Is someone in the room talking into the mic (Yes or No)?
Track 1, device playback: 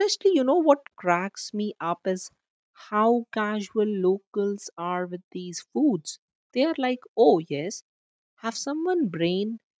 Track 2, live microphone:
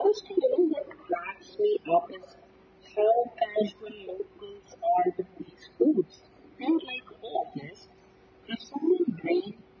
No